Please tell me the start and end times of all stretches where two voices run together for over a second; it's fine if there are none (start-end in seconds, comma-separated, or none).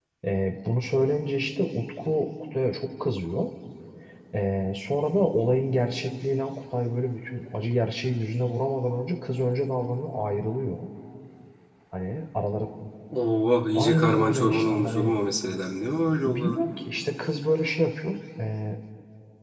13.8-15.1